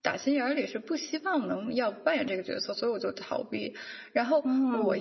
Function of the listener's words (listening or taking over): listening